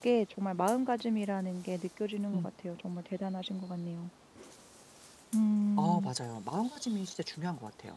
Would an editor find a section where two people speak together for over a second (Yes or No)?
No